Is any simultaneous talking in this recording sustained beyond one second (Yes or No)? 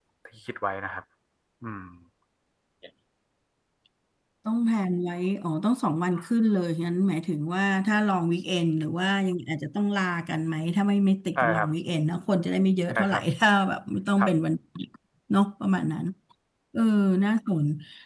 No